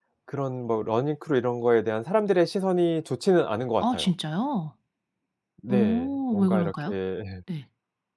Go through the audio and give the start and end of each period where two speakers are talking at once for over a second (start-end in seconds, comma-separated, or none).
5.7-6.9